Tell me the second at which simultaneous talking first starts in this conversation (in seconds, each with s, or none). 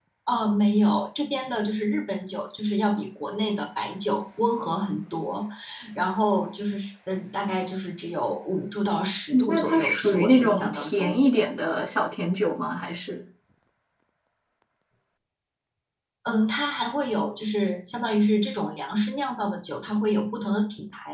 9.3 s